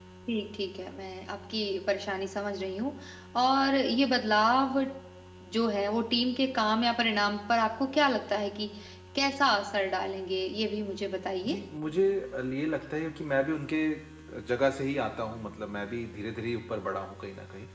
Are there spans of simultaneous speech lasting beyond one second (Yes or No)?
No